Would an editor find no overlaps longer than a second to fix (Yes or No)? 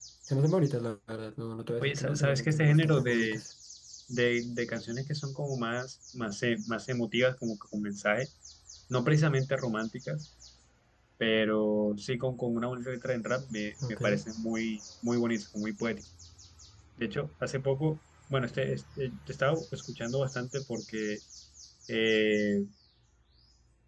No